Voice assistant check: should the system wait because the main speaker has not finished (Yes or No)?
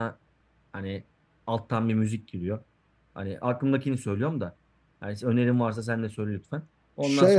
No